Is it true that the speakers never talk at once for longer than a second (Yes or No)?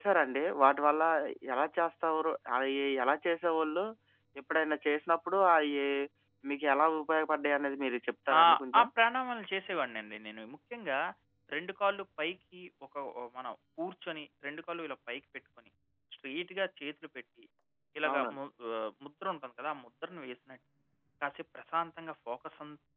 Yes